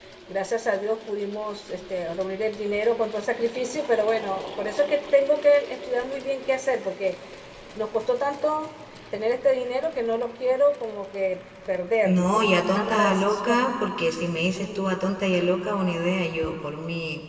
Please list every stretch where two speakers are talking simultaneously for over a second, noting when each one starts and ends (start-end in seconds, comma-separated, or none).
12.0-13.6